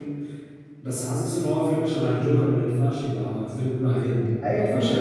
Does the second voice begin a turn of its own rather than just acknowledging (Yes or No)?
Yes